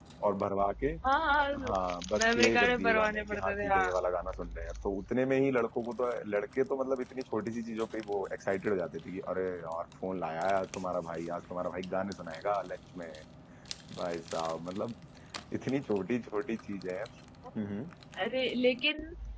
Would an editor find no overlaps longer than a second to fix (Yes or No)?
No